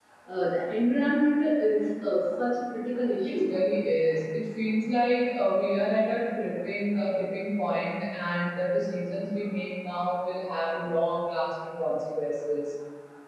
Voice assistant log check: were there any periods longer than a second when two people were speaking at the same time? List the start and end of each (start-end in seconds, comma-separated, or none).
none